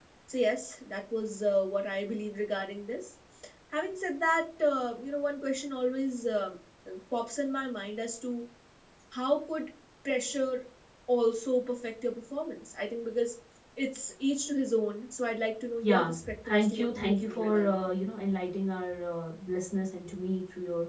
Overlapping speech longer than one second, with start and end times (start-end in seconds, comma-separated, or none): 15.8-17.9